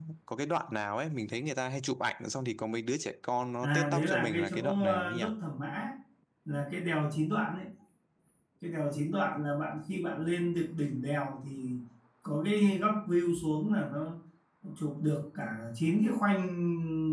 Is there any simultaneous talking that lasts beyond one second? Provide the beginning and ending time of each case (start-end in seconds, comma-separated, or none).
3.6-5.2